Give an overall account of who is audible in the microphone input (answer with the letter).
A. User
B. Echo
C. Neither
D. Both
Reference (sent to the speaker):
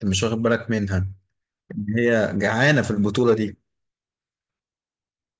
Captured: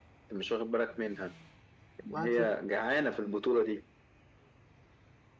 D